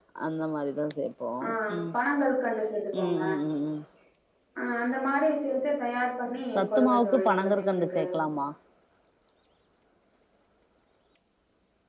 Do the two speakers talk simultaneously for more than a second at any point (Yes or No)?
Yes